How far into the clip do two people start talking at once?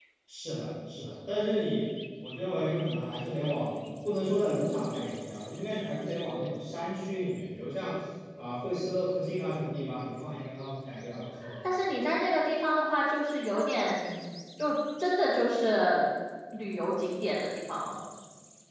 none

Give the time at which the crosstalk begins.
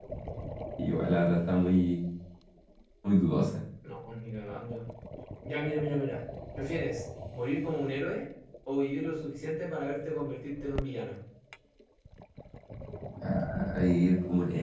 none

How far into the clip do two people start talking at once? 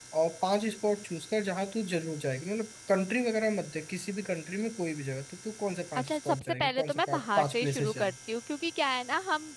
6.0 s

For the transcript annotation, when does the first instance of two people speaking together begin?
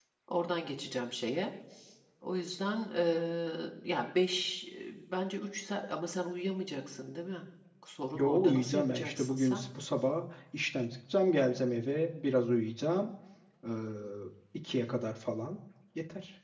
8.1 s

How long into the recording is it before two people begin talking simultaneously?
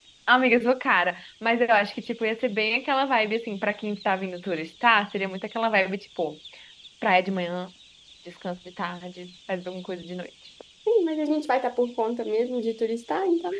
none

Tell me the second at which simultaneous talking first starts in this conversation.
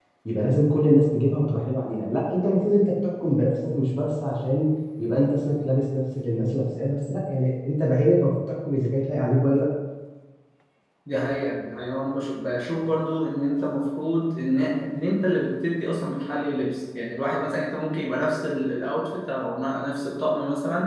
none

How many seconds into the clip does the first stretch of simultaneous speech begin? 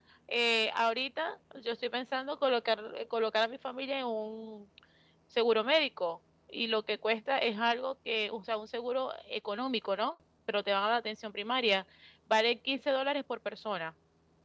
none

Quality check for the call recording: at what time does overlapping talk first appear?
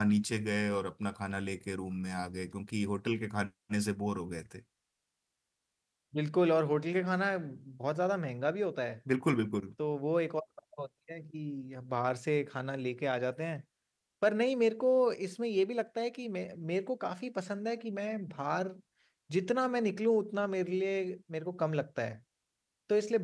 none

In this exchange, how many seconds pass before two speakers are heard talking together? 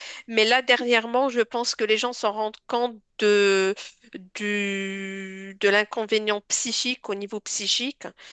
none

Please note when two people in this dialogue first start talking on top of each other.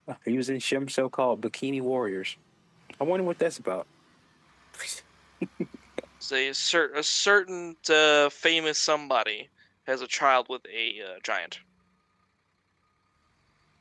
none

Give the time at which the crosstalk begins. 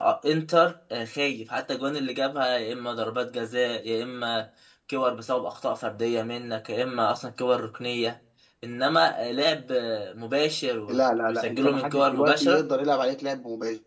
10.9 s

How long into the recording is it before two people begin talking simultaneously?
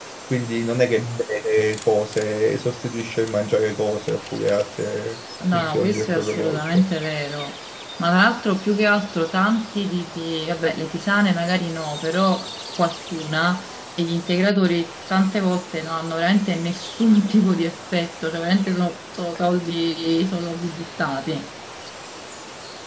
5.4 s

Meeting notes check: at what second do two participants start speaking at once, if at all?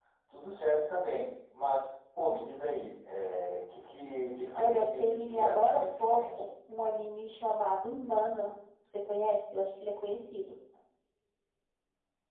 4.5 s

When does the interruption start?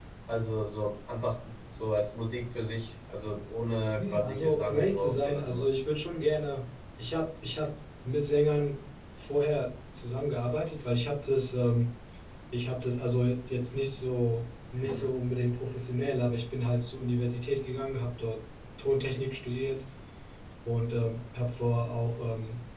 4.0 s

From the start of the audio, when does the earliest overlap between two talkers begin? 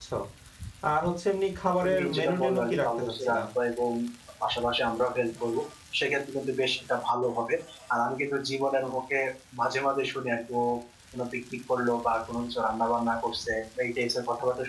1.8 s

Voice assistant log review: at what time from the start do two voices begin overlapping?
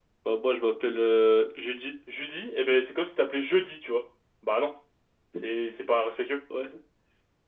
none

